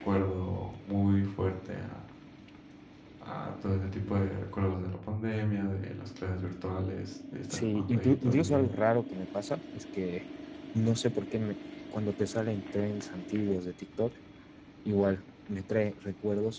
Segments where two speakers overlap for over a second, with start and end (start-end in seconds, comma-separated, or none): 7.5-8.7